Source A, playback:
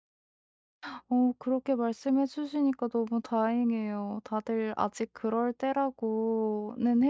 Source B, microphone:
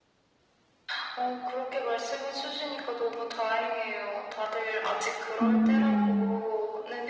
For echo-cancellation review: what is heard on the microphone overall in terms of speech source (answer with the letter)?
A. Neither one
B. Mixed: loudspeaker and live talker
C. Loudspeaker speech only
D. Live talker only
B